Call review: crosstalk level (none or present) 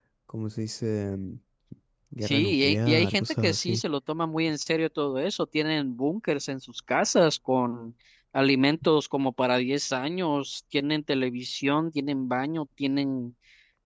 present